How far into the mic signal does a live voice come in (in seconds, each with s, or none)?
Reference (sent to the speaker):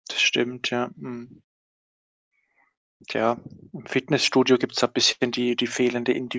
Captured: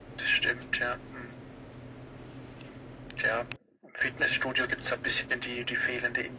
none